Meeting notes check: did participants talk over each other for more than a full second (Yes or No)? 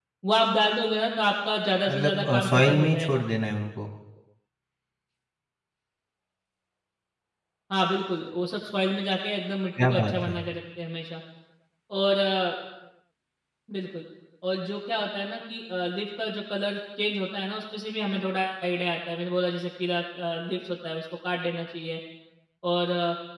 Yes